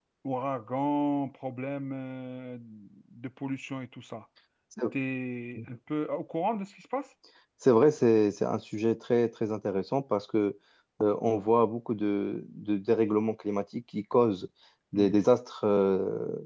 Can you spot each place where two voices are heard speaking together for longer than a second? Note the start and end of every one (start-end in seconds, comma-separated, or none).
none